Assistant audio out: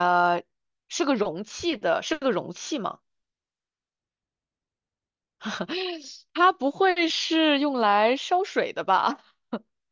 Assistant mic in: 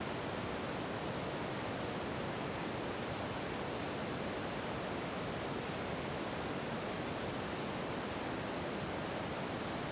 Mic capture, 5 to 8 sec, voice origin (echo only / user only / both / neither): neither